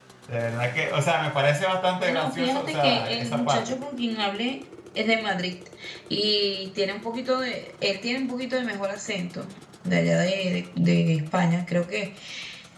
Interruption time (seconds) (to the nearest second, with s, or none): 2 s